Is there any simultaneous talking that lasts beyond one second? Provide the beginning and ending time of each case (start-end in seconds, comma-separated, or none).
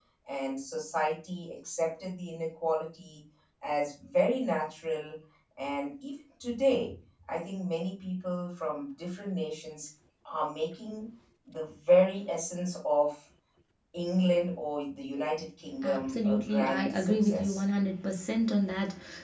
15.8-17.6